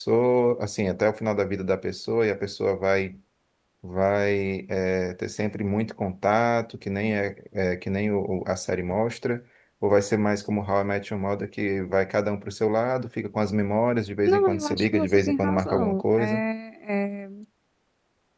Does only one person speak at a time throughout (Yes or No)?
No